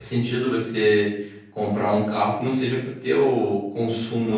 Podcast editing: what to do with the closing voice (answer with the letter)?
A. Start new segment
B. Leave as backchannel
A